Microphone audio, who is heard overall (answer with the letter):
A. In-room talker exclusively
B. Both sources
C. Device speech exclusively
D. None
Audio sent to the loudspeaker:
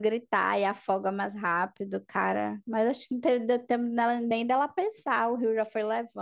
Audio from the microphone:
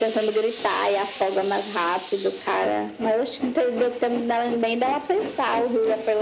C